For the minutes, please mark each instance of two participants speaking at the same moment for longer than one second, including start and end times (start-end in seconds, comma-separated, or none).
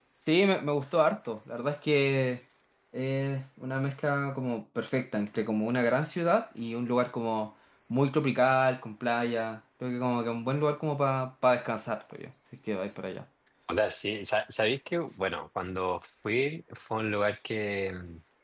none